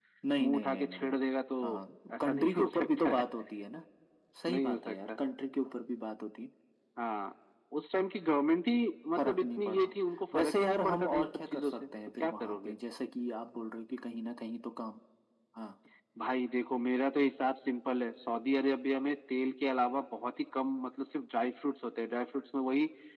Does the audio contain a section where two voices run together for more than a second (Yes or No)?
Yes